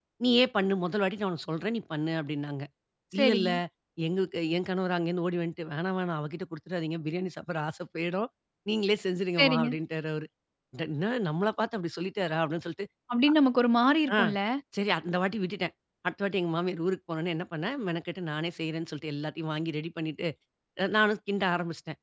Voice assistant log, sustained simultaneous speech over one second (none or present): none